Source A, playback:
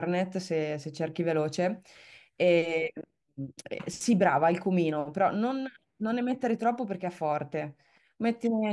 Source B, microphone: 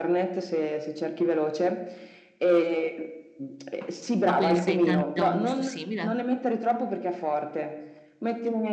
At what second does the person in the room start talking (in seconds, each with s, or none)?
4.2 s